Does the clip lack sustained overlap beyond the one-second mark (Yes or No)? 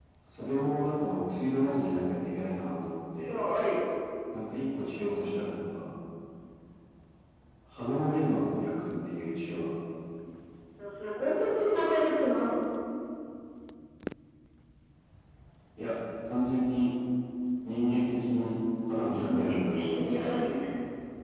No